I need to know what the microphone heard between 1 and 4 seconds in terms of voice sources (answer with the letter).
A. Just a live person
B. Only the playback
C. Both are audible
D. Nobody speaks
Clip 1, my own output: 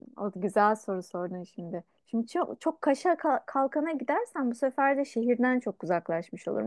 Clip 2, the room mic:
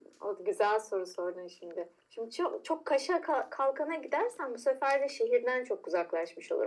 B